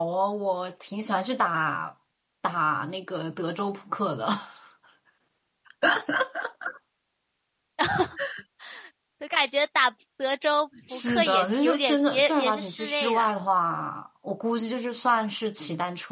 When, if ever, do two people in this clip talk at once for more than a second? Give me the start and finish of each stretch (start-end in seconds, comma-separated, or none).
10.9-13.3